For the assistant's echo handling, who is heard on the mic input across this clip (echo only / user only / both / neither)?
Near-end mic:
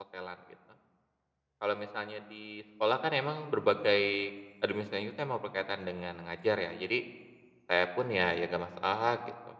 user only